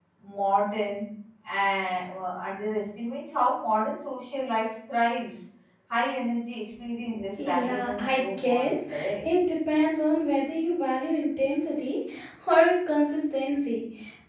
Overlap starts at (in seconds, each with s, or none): 7.3 s